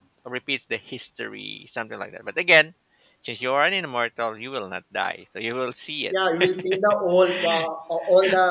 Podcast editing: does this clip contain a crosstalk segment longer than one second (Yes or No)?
No